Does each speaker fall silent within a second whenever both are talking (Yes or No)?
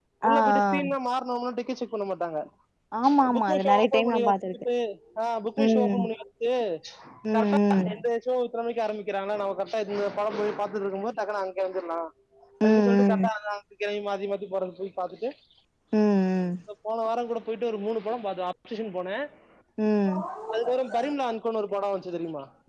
No